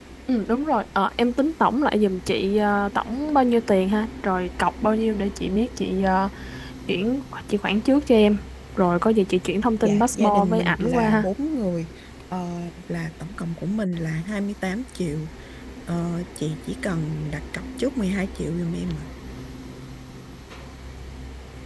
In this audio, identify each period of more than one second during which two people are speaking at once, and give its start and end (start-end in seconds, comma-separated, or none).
9.8-11.2